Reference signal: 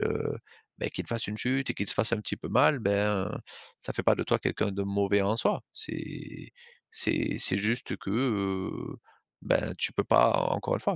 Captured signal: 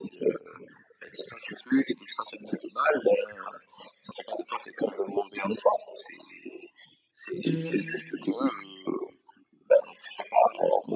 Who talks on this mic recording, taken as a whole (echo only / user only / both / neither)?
both